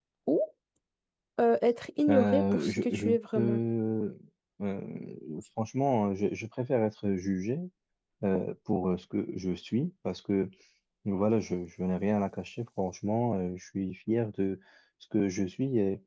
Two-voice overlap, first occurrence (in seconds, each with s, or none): 2.1 s